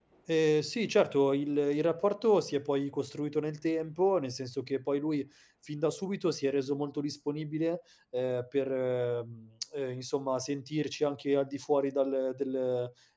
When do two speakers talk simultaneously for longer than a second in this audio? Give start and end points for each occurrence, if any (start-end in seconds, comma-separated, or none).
none